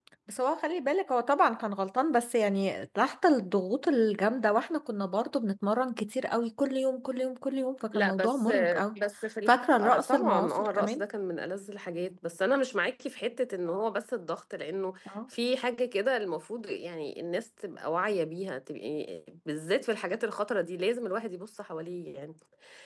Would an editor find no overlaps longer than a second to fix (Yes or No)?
No